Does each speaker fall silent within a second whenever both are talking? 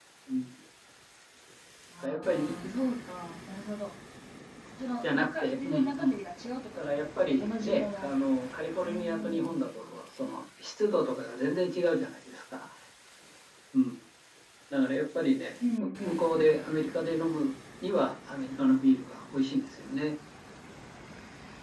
No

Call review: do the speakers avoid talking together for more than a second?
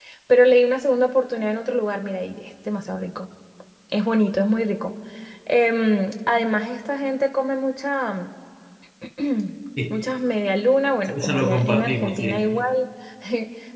No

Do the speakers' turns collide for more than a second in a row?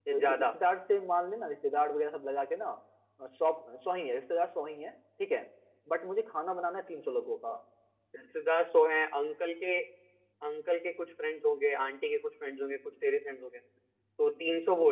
No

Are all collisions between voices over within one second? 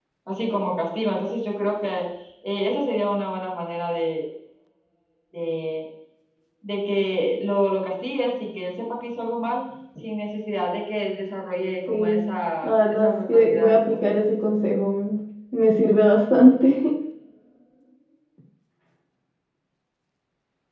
No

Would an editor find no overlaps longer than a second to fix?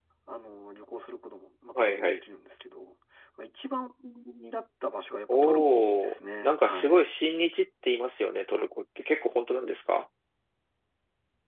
No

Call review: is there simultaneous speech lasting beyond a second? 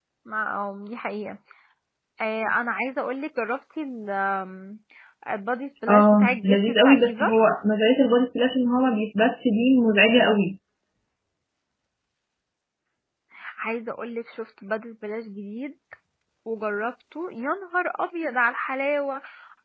Yes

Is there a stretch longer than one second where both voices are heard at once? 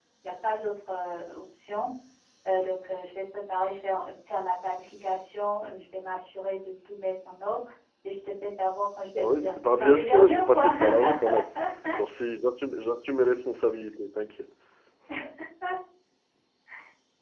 Yes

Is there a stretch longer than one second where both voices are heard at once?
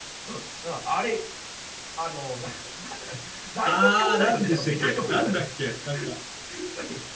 Yes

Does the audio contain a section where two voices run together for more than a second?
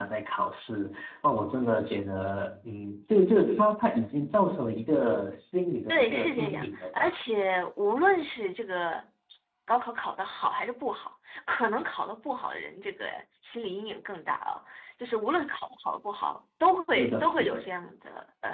Yes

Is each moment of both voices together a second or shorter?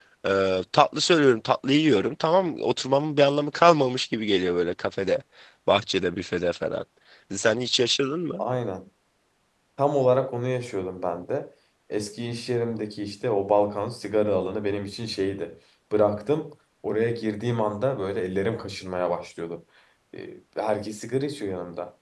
Yes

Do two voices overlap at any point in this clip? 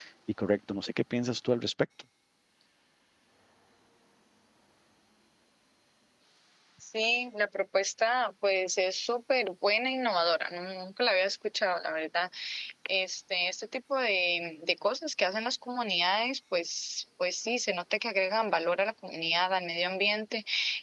No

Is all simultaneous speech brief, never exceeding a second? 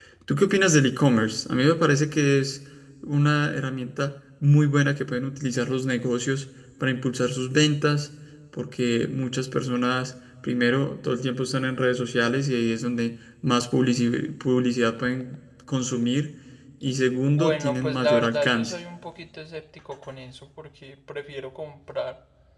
No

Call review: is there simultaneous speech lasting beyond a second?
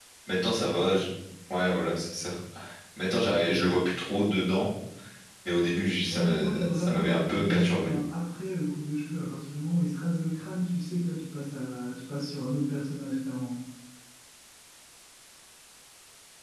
Yes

